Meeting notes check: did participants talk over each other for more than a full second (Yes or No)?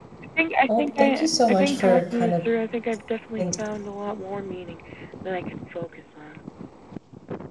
Yes